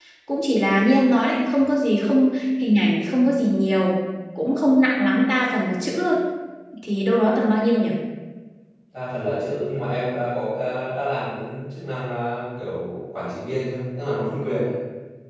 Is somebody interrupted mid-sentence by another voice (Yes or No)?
No